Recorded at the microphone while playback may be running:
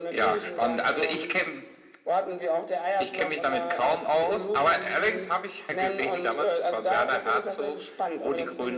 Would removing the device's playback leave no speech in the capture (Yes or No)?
Yes